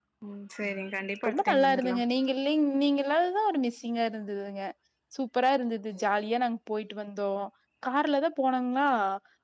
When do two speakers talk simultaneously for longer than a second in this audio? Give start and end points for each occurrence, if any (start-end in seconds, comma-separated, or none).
0.7-2.0